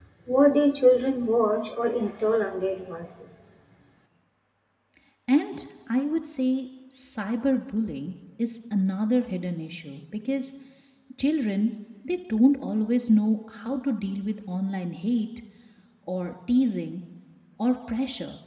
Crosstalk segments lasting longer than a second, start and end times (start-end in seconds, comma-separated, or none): none